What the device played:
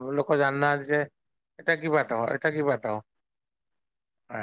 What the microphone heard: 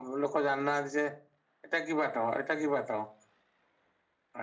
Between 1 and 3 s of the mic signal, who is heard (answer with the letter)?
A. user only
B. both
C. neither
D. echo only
D